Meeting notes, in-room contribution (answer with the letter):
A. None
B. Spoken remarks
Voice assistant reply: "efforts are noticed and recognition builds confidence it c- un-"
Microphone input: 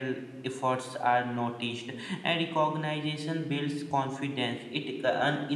A